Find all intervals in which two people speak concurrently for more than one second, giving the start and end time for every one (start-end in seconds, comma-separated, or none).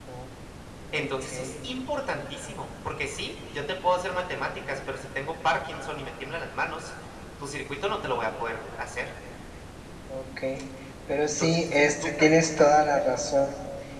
11.3-12.7